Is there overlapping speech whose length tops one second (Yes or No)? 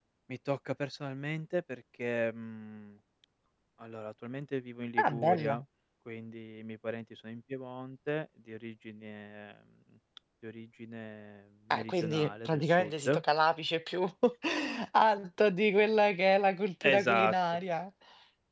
Yes